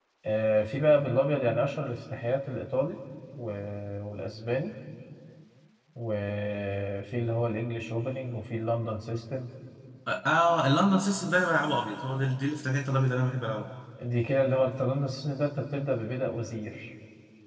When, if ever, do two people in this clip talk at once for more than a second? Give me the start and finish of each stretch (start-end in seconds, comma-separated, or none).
none